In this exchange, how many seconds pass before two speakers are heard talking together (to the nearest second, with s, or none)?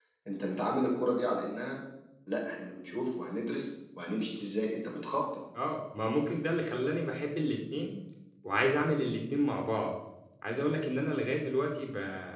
none